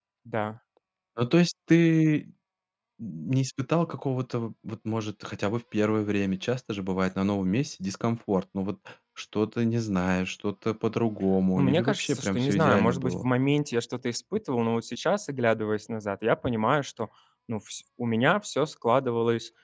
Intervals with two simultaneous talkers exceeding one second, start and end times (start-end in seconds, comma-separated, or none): 11.6-13.3